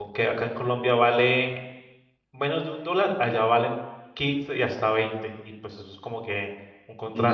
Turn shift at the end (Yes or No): Yes